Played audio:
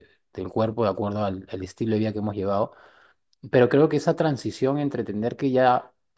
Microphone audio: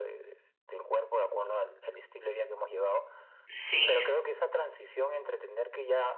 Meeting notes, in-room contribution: present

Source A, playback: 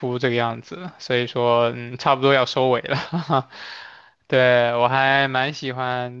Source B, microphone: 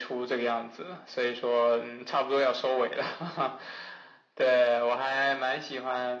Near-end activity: none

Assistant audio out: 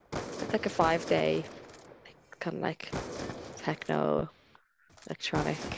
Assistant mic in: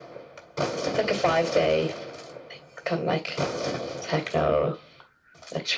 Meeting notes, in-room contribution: none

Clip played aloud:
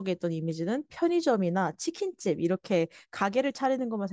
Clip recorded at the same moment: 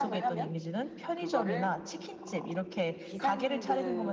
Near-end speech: present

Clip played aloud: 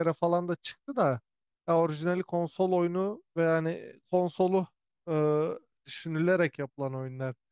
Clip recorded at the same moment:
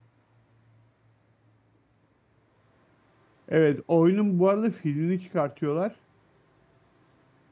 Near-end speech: present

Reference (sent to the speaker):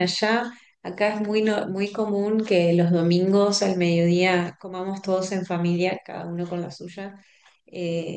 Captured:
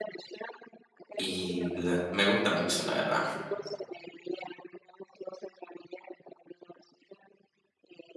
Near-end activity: present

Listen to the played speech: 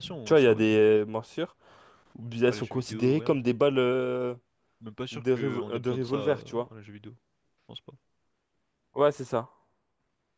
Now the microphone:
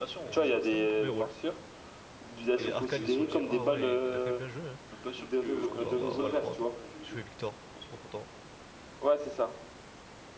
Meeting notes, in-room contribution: present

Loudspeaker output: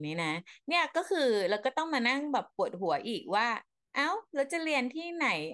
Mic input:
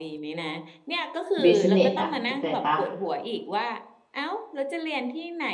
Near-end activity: present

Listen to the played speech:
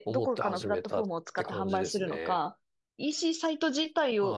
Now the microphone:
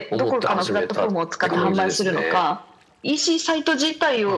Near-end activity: present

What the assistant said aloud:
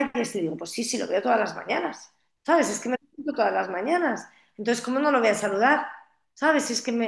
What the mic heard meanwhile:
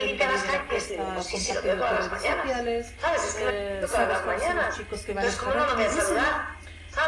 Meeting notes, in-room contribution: present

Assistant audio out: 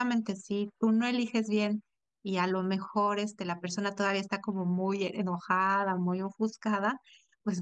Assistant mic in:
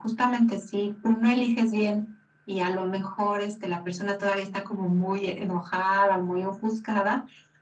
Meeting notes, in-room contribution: none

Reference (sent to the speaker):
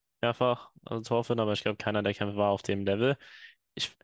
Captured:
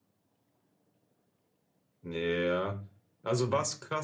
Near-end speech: present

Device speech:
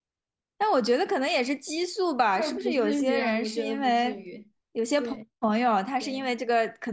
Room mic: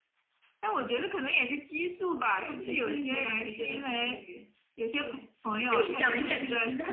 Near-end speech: present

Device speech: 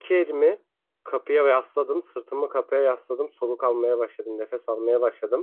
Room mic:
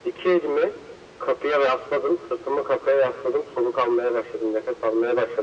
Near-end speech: none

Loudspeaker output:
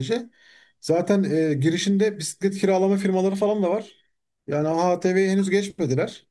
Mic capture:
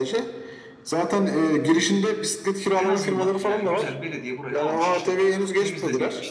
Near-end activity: present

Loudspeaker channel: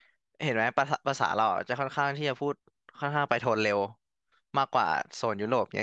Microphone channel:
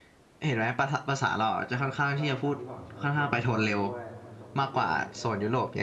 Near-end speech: present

